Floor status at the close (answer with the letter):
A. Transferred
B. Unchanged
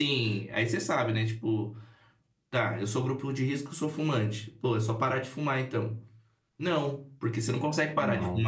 B